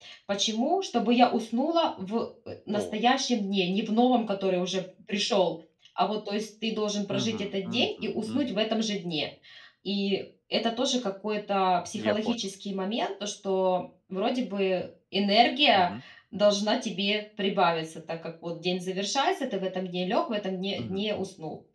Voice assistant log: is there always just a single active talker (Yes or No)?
No